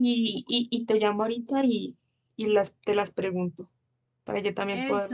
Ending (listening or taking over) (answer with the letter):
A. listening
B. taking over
B